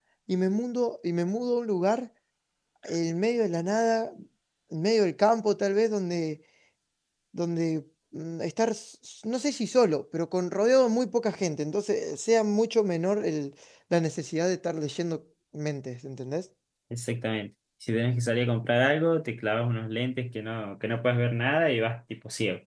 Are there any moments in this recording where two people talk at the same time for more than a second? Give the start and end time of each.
none

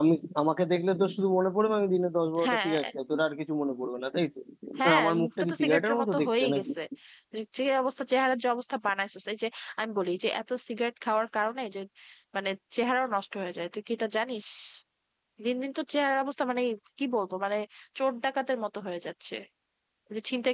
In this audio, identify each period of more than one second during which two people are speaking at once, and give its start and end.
4.8-6.6

